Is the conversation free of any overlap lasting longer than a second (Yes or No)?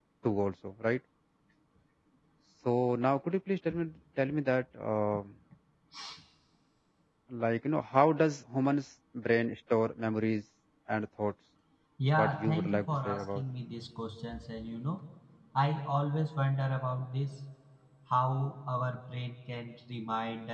No